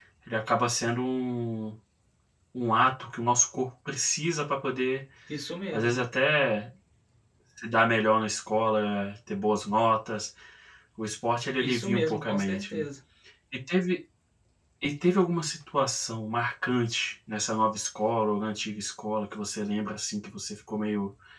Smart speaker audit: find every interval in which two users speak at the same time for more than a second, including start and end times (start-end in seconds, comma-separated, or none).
11.6-12.8